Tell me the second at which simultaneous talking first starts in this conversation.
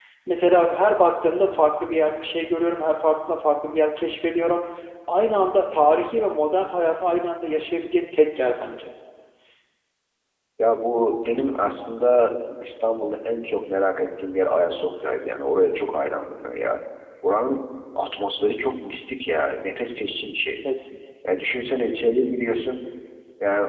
none

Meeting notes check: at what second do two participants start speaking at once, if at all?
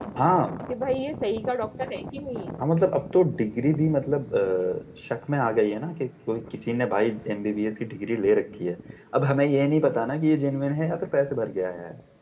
none

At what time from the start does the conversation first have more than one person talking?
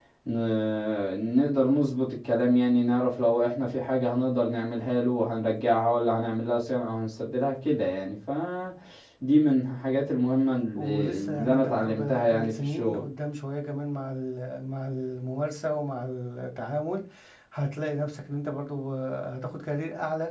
11 s

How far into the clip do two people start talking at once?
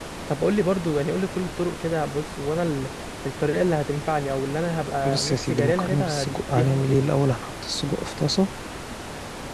5 s

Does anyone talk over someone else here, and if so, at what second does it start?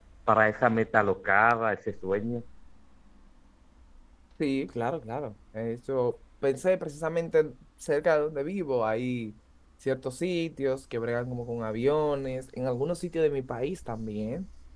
none

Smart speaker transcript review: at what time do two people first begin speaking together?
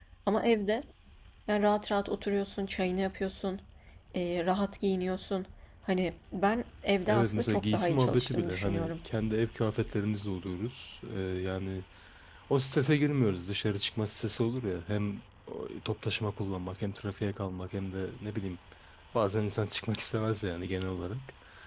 7 s

